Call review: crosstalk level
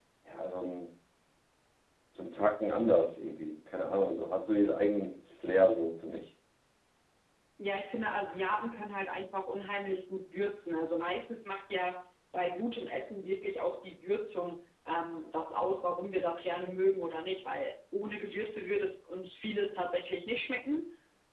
none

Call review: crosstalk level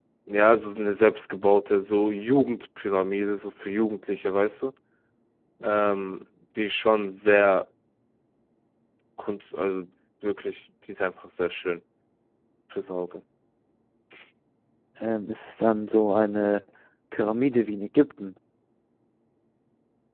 none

